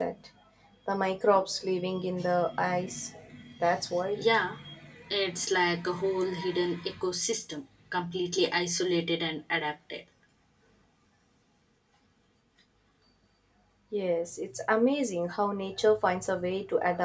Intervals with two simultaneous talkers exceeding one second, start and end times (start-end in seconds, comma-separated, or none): none